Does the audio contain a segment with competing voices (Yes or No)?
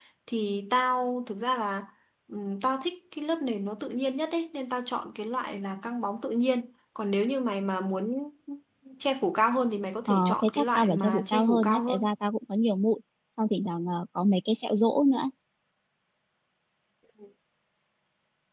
Yes